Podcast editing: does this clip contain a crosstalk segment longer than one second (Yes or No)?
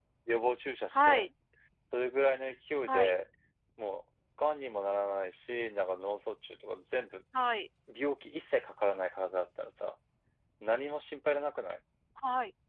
No